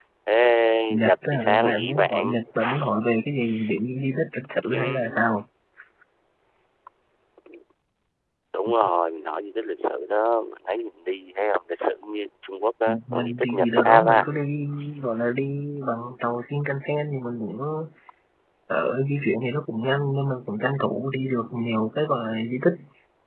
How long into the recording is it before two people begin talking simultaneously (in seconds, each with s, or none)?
1.0 s